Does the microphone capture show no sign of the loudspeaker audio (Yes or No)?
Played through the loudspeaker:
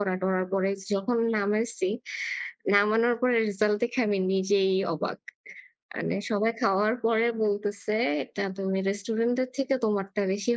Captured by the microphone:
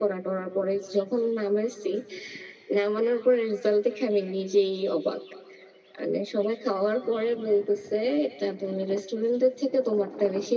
No